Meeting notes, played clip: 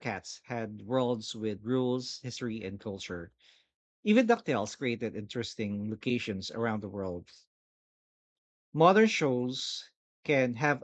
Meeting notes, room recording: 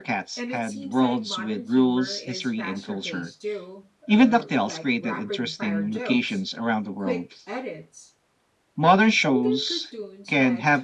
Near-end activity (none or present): present